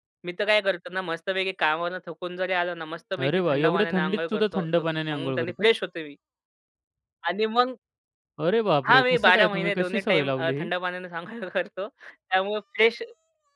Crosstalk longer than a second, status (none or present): present